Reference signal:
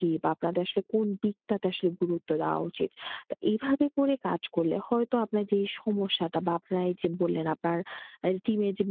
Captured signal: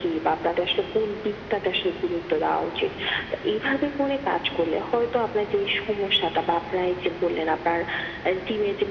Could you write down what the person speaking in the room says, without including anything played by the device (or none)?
none